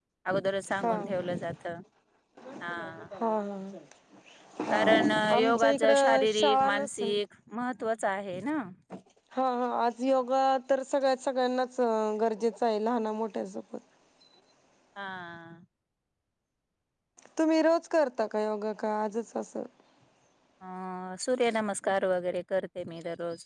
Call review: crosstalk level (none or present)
present